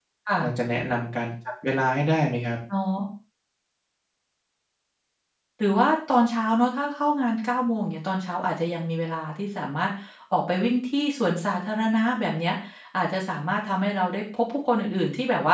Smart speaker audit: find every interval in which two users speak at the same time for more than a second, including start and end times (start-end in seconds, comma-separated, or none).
none